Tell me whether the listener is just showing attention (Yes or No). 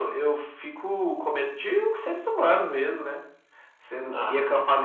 Yes